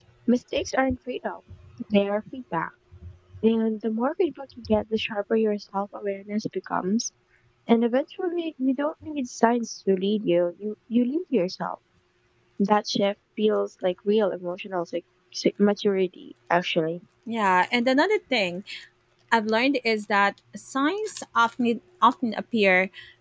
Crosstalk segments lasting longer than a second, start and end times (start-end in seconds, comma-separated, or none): none